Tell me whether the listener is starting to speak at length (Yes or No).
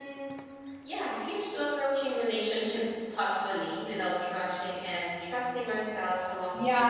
Yes